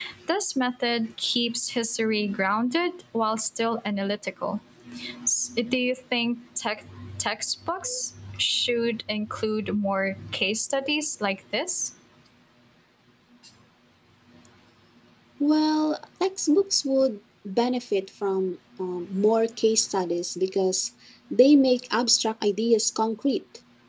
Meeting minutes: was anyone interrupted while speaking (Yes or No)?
No